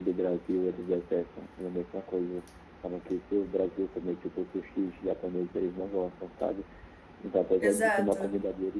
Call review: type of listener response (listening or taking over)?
listening